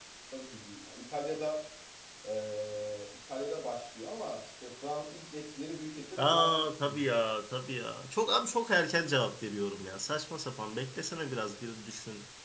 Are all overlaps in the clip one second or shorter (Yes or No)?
Yes